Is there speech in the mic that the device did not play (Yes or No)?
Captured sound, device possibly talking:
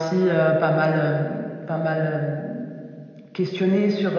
No